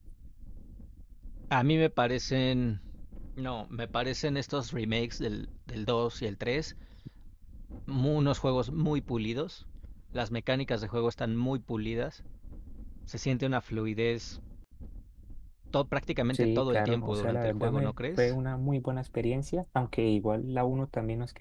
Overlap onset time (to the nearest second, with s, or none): 16 s